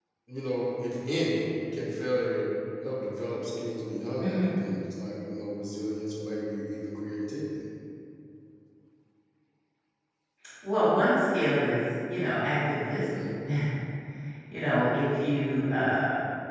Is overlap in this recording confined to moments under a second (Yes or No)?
Yes